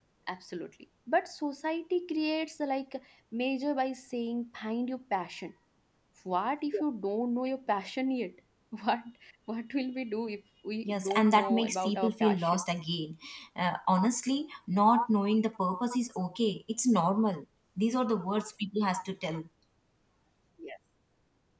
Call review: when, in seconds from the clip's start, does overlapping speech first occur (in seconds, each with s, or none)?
10.8 s